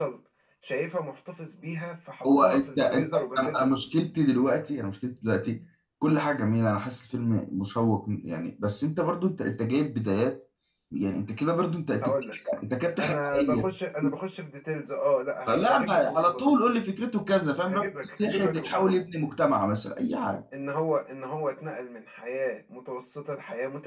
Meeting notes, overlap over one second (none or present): present